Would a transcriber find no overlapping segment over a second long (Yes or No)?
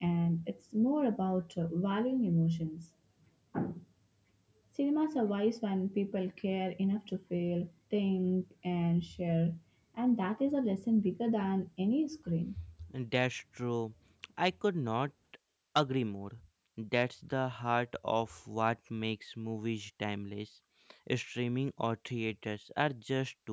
Yes